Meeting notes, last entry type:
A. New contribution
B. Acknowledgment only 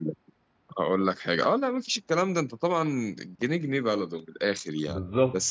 B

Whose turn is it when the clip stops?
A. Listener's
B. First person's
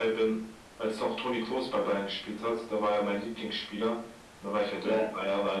B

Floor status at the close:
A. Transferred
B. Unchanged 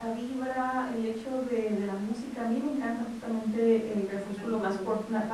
B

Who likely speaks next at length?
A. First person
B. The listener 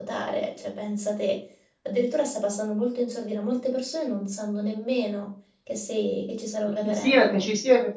B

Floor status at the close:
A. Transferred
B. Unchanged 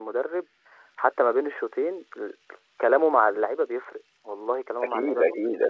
A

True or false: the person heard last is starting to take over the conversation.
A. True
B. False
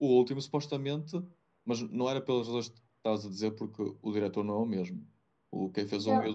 B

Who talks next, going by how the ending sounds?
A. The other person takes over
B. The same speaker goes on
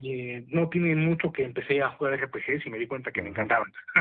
A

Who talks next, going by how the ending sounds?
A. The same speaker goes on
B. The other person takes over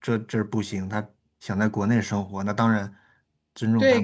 B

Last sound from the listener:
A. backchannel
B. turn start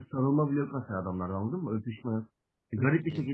A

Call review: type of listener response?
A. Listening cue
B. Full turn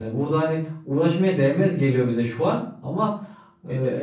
A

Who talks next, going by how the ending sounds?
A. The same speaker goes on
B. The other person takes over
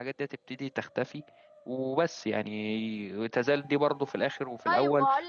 B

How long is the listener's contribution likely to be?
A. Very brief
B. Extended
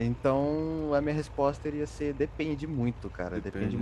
A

